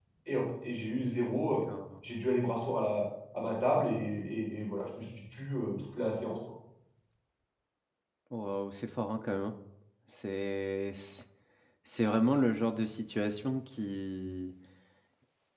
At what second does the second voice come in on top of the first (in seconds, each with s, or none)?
none